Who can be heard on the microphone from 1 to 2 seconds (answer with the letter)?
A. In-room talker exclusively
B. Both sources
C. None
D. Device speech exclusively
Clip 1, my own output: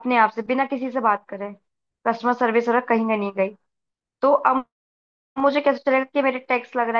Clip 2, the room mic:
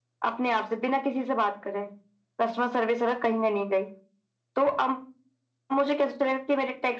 D